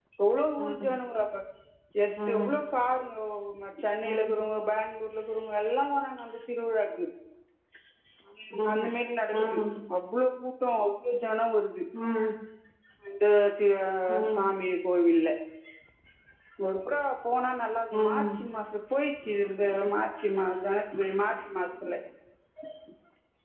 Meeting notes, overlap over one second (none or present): none